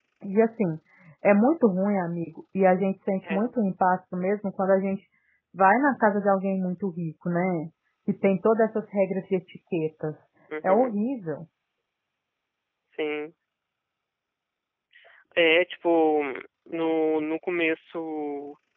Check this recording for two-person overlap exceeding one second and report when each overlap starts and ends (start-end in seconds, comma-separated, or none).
none